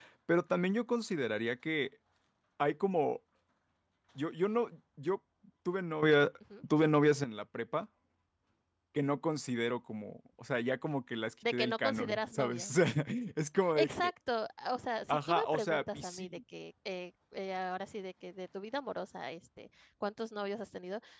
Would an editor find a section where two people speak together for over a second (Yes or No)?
Yes